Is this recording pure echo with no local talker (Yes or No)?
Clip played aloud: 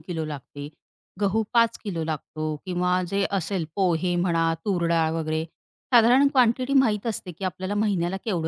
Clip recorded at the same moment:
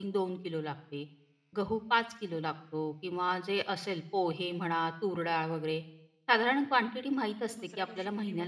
No